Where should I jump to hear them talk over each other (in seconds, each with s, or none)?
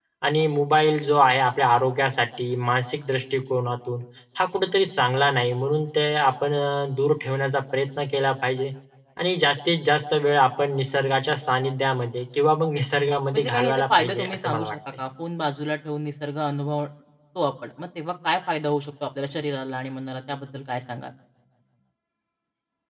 13.3 s